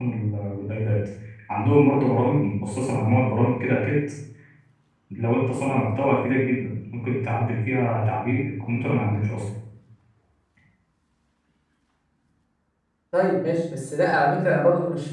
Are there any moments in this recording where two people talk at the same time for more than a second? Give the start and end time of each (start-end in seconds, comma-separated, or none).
none